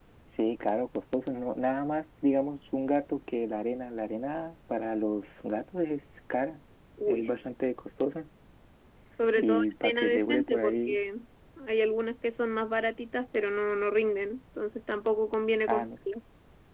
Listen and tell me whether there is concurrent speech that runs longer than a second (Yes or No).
Yes